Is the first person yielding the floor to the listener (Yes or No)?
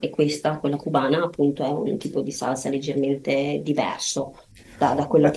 Yes